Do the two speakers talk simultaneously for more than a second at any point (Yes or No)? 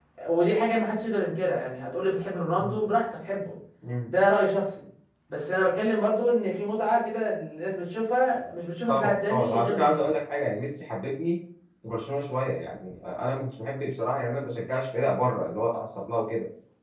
Yes